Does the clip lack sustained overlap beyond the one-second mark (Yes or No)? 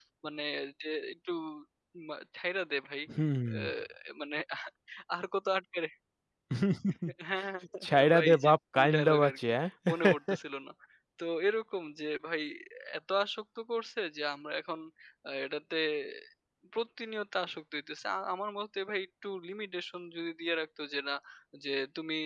No